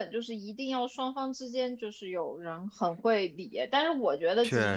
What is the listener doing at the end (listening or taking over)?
listening